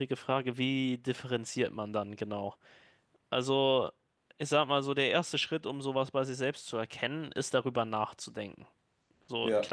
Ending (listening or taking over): listening